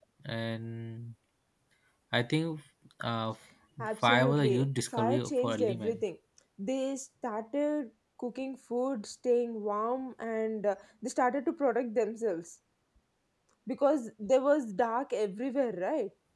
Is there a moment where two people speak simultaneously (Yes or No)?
Yes